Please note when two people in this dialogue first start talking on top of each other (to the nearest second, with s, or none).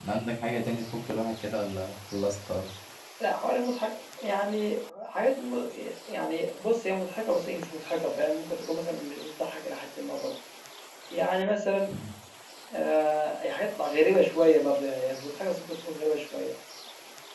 none